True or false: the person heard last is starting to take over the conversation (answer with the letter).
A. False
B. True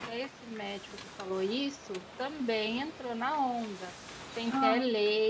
A